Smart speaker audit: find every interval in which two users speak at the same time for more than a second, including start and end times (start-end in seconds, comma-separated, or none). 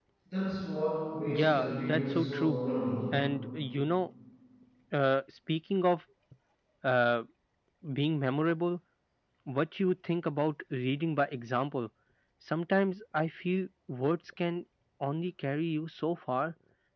1.3-2.6